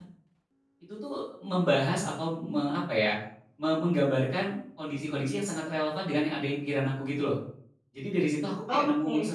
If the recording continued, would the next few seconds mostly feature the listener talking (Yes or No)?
No